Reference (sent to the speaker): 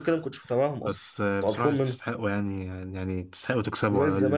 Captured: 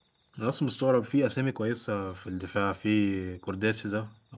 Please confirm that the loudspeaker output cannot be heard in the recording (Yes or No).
Yes